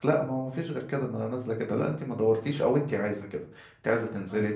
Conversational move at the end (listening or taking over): listening